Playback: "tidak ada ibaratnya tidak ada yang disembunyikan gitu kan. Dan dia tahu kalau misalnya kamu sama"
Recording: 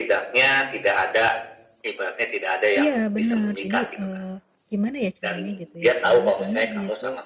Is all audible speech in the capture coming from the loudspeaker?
No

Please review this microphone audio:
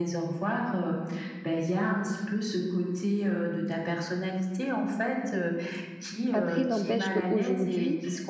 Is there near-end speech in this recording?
Yes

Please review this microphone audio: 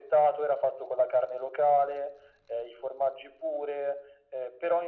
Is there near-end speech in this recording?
No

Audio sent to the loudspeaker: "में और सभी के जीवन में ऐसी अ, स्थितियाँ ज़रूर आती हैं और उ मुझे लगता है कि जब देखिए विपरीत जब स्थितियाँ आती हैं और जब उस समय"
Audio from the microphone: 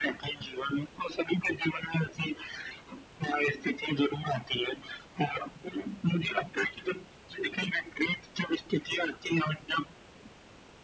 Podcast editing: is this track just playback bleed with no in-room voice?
Yes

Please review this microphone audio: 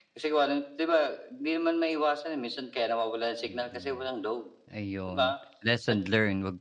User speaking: Yes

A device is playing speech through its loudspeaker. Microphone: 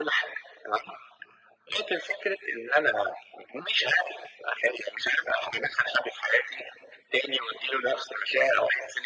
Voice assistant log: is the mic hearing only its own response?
Yes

